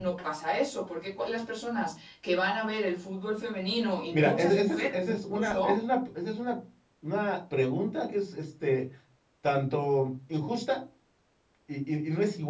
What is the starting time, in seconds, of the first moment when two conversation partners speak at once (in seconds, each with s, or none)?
4.1 s